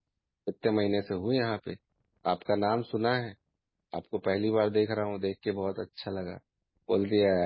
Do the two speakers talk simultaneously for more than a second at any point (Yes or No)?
No